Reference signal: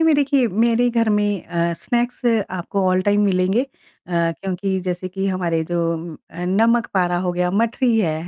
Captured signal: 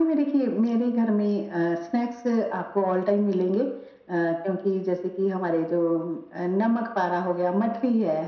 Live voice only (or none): none